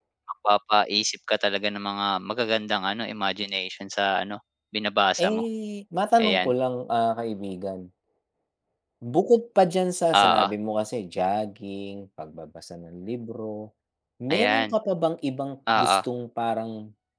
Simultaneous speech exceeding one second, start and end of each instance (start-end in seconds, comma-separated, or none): none